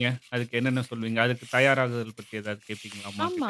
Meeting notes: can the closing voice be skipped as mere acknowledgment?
No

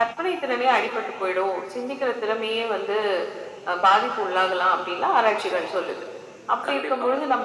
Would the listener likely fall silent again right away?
Yes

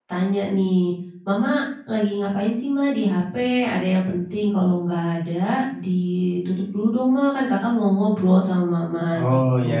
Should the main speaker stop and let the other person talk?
No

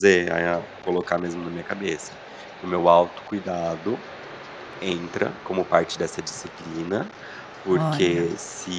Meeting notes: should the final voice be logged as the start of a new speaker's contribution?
No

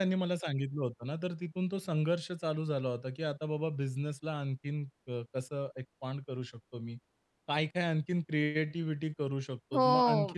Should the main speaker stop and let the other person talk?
No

